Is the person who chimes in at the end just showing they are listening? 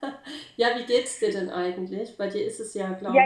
No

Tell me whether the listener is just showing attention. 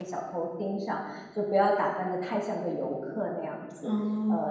Yes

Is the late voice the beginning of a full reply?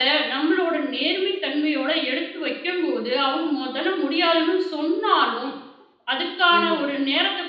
No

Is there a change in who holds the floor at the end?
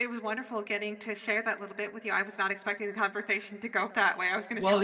Yes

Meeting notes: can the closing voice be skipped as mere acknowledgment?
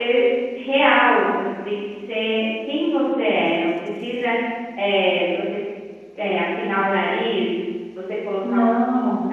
Yes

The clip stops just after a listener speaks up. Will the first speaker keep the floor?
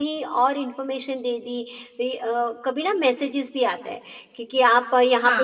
Yes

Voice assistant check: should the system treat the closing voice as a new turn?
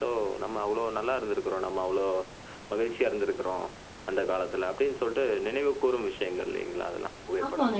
Yes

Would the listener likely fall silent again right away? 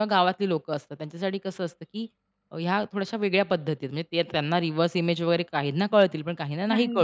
Yes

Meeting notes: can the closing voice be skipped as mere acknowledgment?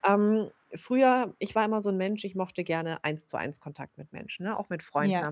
Yes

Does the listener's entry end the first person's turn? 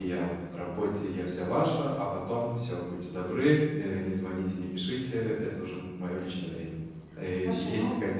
No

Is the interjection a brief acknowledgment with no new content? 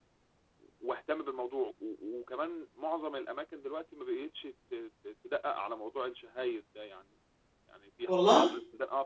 Yes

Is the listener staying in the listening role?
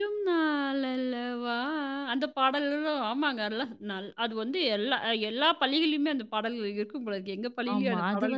No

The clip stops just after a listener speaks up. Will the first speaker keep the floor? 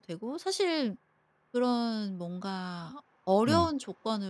Yes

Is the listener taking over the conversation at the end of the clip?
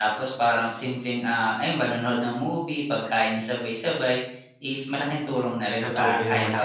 Yes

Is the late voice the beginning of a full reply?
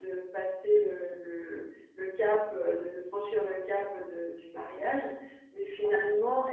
No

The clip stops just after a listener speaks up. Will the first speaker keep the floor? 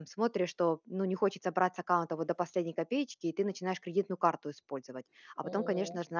Yes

